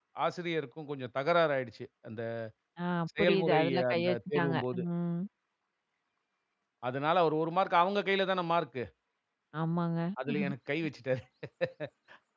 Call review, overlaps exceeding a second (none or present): present